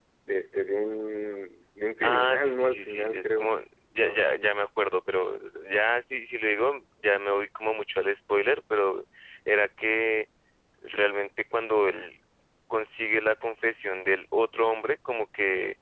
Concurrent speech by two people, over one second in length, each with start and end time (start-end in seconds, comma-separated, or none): 2.0-3.5